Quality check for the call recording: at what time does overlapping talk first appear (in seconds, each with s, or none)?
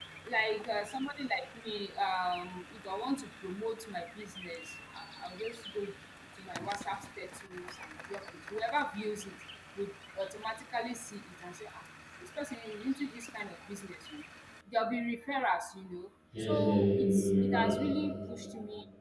16.3 s